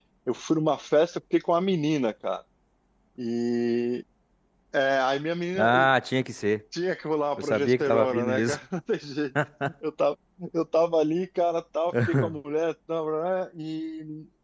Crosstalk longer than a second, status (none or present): present